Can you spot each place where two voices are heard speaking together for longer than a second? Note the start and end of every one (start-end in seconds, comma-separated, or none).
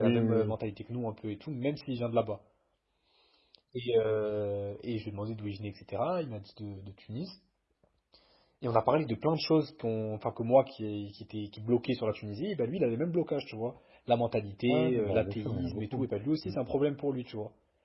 14.7-16.0